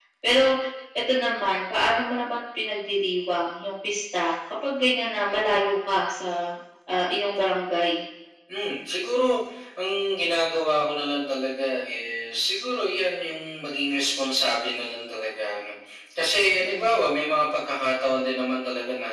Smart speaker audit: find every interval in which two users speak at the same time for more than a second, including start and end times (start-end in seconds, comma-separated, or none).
none